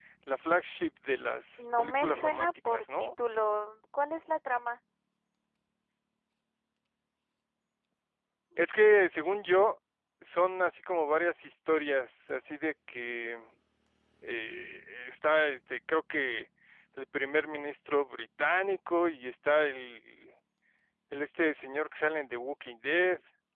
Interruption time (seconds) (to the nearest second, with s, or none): 2 s